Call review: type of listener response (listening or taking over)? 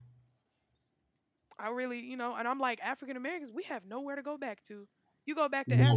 listening